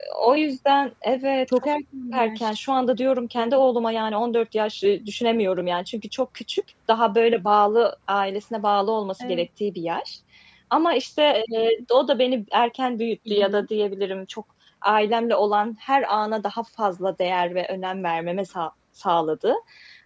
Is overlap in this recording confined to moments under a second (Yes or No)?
Yes